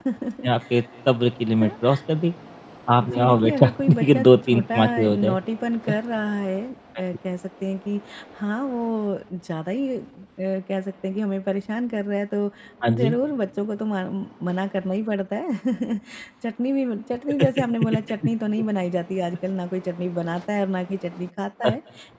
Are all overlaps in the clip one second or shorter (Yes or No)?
No